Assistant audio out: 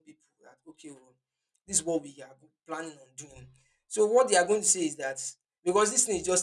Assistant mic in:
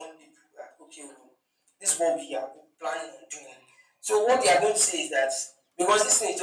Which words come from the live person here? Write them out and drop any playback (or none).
none